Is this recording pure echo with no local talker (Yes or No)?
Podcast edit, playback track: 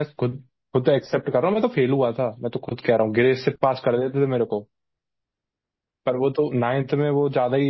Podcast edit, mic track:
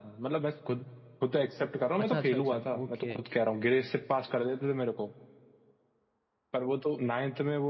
No